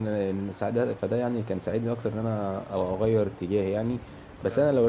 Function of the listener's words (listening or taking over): listening